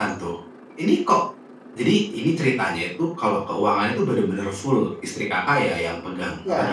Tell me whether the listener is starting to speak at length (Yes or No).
Yes